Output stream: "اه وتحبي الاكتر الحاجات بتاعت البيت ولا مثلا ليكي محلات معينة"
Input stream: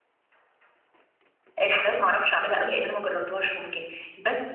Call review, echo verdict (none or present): none